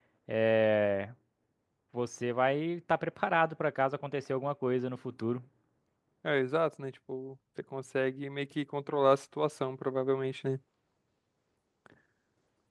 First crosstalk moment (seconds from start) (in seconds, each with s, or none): none